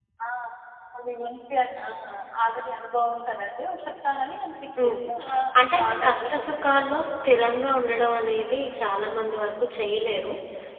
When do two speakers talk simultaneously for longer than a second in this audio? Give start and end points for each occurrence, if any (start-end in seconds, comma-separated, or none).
5.6-6.9